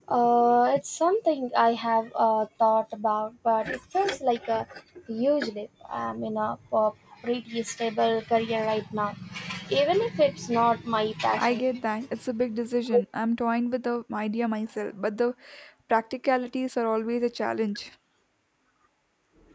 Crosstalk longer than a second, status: none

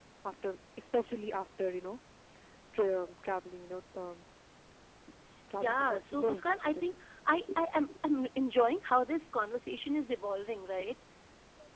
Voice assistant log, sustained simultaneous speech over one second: present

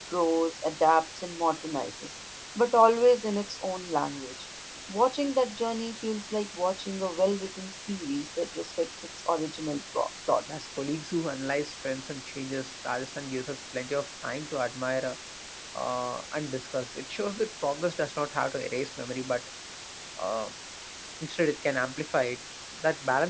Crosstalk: none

